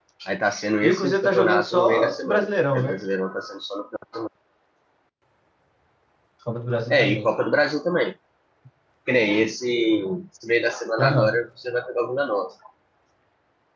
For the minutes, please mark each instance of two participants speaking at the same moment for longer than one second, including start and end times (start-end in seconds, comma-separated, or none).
0.8-3.0